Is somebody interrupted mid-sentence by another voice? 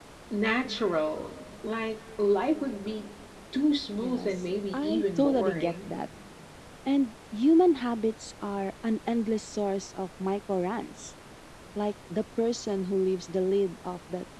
Yes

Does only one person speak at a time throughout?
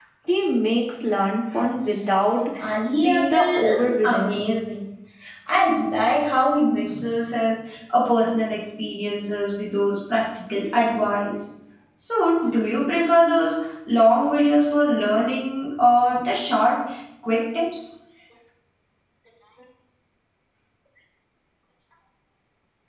No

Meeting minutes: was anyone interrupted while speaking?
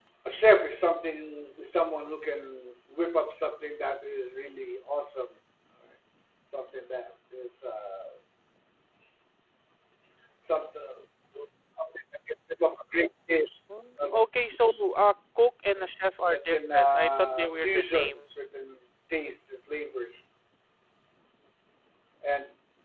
Yes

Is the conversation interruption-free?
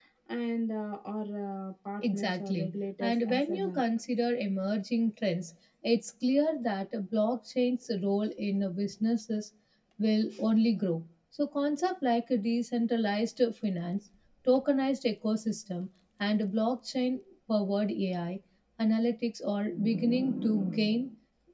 No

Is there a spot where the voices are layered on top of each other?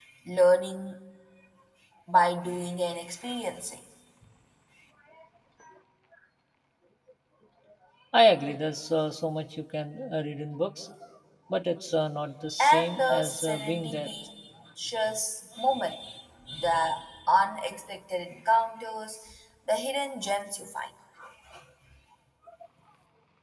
Yes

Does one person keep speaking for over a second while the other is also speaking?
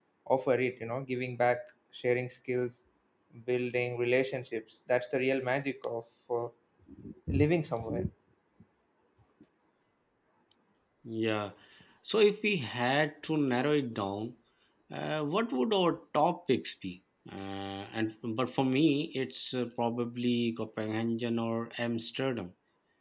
No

